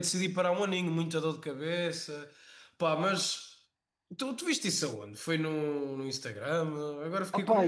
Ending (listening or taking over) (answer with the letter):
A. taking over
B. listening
A